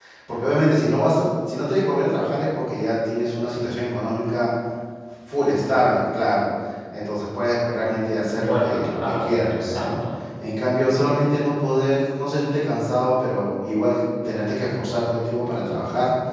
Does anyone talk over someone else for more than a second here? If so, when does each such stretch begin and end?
8.3-9.9

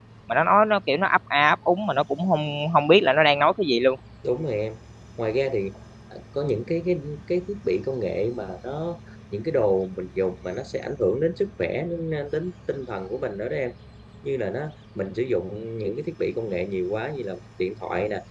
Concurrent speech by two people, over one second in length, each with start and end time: none

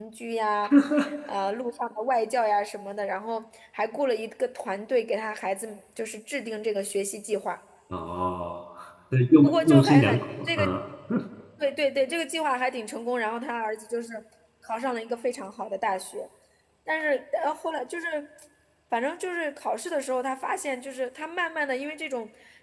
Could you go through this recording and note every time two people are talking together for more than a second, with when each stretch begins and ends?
9.4-10.6

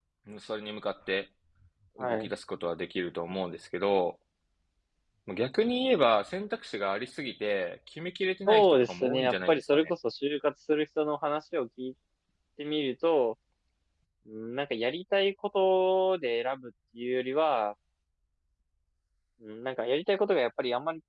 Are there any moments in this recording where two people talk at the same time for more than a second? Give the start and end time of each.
8.5-9.9

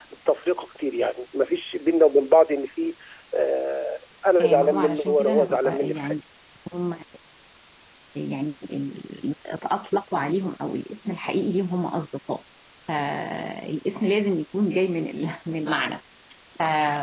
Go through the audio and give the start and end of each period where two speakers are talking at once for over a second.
4.4-6.2

